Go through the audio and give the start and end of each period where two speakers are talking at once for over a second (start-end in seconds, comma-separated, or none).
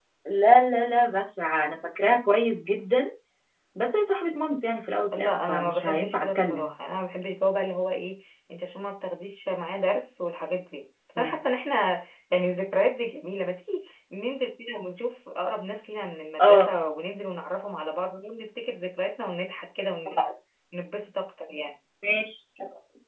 5.2-6.7